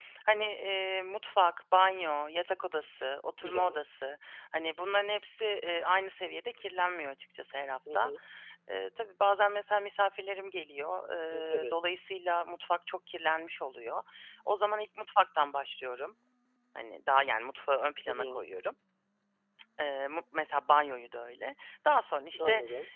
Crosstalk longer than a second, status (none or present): none